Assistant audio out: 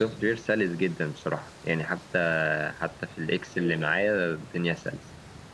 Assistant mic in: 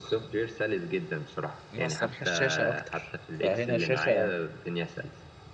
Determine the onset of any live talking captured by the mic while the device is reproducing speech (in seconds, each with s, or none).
1.7 s